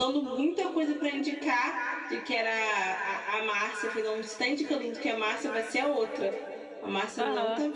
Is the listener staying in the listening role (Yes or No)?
Yes